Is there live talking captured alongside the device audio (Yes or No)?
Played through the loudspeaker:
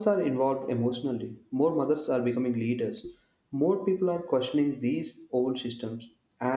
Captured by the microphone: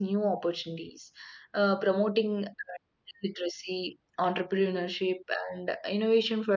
Yes